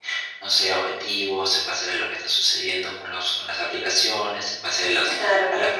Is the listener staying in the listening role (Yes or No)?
Yes